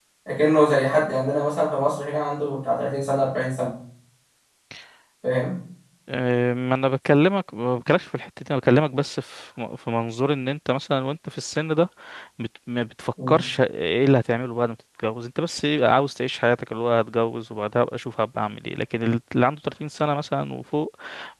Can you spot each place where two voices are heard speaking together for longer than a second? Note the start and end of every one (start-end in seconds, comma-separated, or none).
none